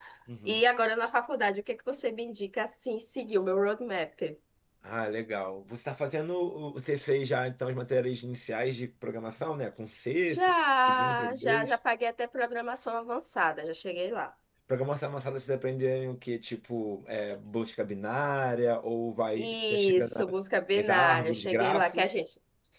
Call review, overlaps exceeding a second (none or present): present